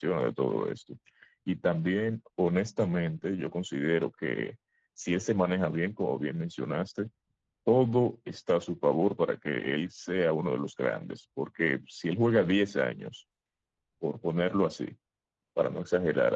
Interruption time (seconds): none

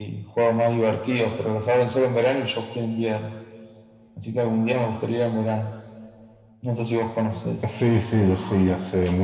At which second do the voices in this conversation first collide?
none

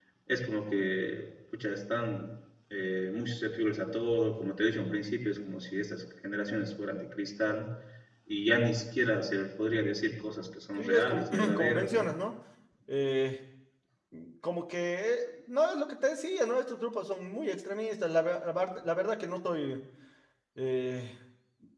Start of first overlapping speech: 10.8 s

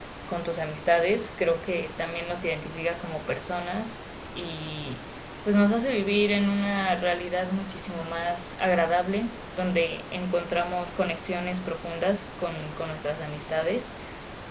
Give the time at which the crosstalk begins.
none

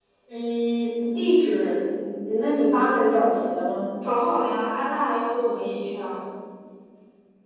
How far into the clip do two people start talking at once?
none

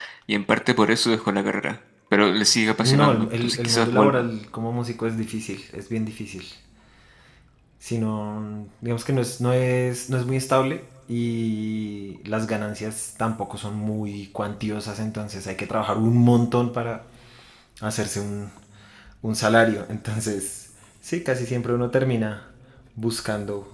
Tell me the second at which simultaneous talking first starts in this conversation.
2.8 s

